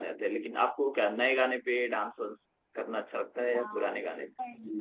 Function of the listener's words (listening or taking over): taking over